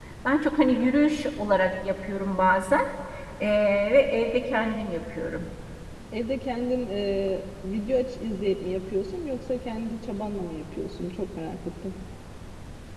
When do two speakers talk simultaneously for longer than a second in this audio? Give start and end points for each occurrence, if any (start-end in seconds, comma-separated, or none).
none